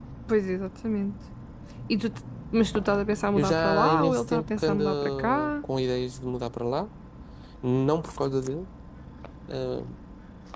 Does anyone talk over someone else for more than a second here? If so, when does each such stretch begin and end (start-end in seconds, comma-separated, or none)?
3.4-5.5